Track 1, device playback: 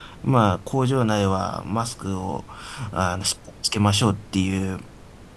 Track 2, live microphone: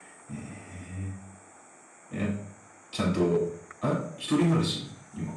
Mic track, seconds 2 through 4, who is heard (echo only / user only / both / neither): user only